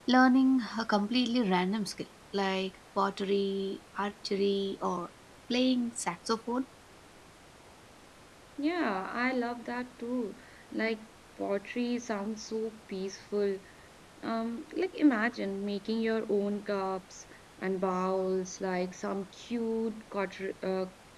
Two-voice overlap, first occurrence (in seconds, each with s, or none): none